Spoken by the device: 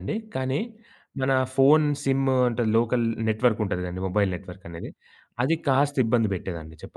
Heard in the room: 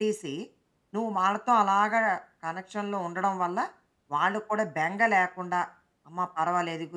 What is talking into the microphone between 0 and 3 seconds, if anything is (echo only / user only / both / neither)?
user only